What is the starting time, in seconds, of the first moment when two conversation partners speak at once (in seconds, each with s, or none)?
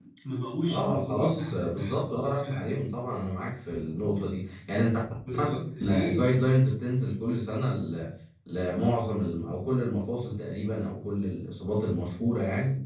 0.6 s